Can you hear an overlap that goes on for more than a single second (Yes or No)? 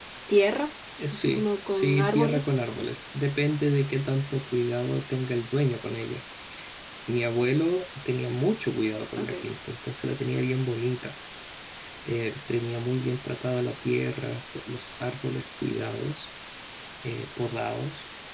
Yes